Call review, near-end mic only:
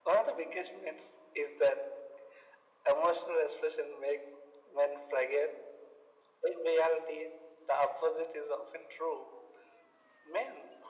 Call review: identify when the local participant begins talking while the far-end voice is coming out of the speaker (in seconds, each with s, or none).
none